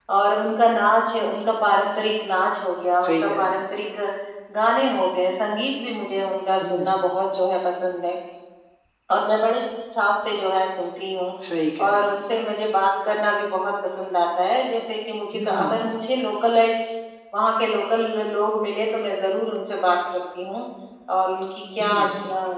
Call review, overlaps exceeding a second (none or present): none